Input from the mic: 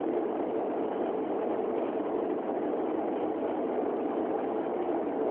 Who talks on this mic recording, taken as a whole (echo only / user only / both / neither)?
neither